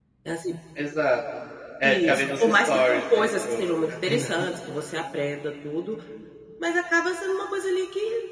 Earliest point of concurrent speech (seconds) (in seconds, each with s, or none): 1.8 s